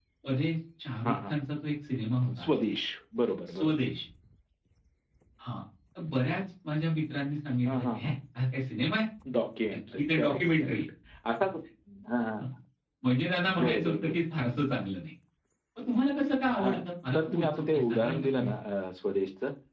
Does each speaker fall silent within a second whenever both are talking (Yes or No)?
No